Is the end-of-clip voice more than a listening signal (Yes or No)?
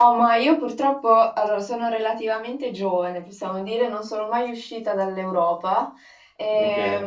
No